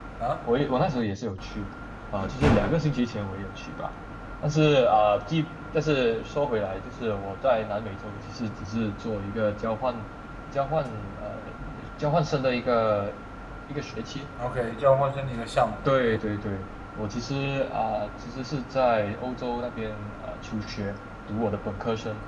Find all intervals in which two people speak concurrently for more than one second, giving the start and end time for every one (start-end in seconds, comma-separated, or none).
none